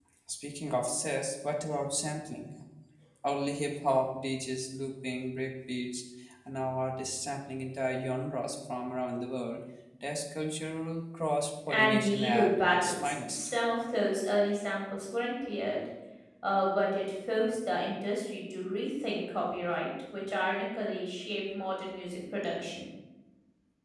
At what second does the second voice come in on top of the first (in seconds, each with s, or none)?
11.7 s